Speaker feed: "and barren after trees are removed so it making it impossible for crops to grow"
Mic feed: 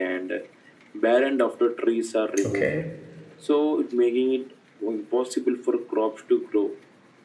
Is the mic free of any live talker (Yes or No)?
No